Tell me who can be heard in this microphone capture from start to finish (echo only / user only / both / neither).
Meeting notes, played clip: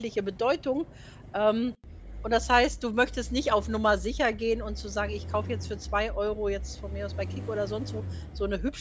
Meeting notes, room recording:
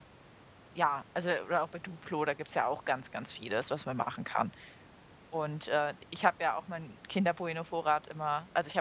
user only